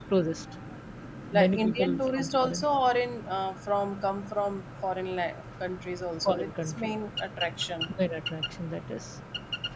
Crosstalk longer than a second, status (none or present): present